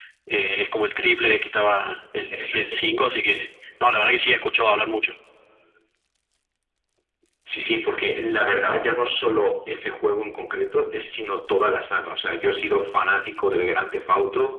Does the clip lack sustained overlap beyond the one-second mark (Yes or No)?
Yes